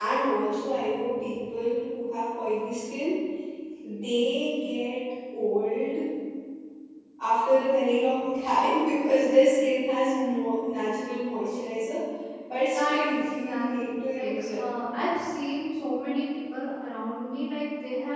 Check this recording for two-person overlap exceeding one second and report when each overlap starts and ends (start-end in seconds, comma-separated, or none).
12.7-14.6